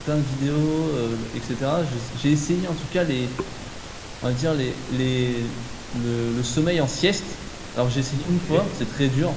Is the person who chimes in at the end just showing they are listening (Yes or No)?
Yes